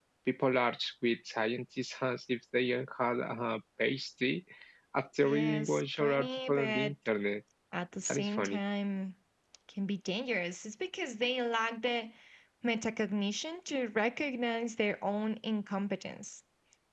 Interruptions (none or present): present